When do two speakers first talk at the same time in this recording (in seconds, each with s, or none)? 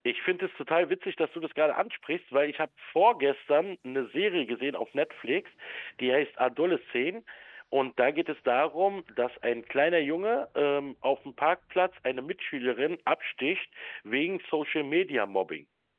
none